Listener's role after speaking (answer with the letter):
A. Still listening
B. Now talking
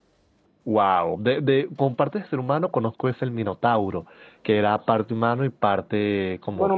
B